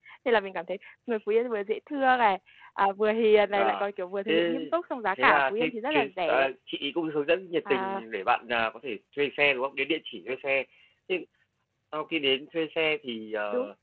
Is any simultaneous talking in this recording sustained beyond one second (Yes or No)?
Yes